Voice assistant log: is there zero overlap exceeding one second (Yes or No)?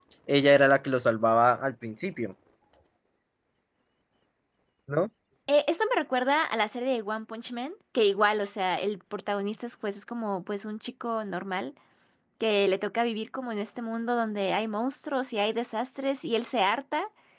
Yes